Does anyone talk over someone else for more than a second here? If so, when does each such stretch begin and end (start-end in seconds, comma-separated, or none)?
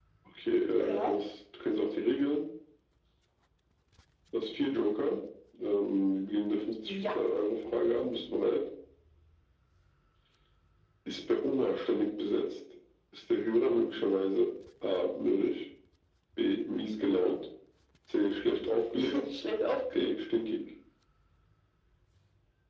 none